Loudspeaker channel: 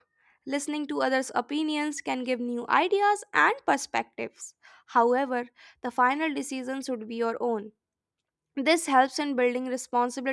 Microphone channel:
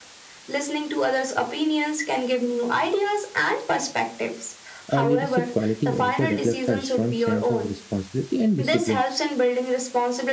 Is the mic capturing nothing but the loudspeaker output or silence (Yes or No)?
No